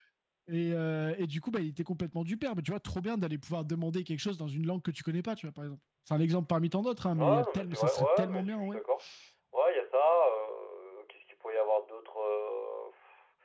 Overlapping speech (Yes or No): Yes